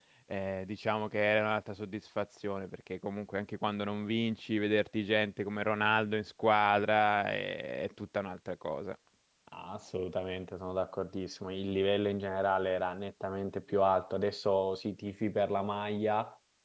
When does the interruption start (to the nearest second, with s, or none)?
none